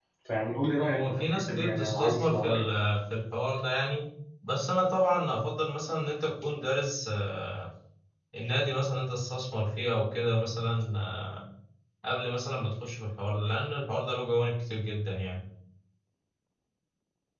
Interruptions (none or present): present